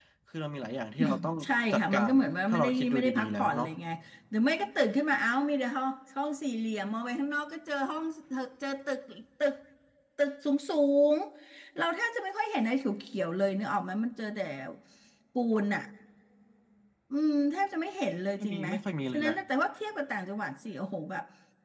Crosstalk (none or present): present